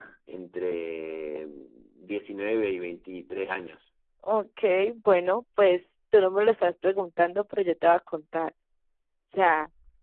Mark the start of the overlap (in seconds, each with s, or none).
none